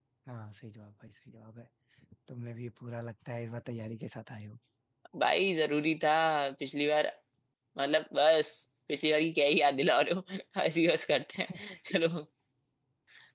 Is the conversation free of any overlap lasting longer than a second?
Yes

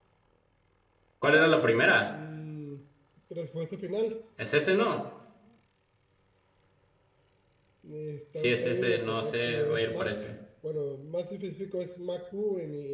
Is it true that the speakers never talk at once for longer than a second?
No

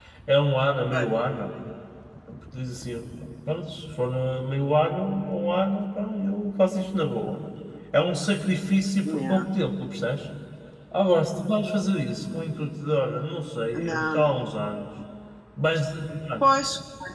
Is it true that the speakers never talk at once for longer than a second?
Yes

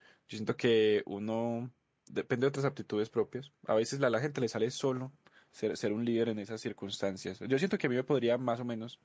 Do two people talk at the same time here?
No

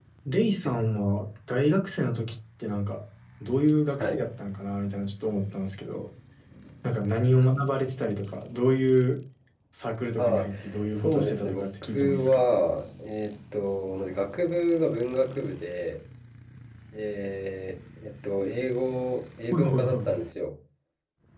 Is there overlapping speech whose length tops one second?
Yes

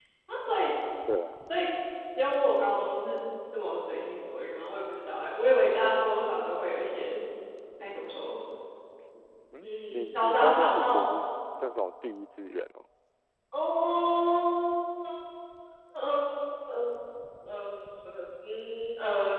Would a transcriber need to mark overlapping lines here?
Yes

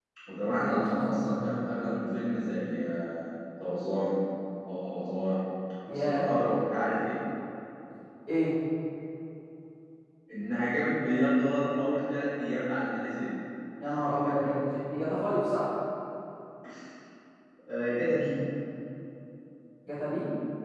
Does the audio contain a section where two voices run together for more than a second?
Yes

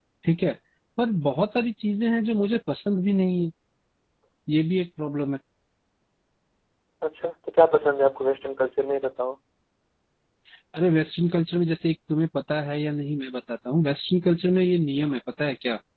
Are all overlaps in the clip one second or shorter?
Yes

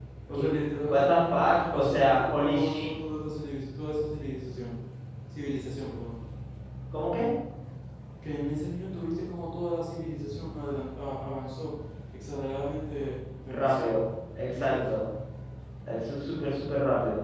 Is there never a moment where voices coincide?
No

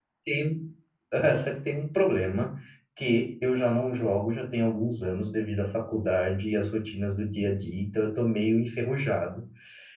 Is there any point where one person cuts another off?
No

